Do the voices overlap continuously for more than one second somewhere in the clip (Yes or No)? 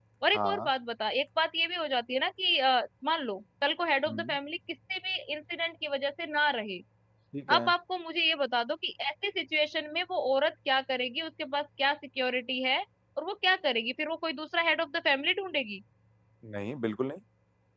No